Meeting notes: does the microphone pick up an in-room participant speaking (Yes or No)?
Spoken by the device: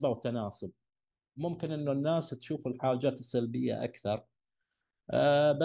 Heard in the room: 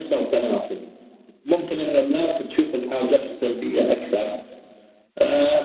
No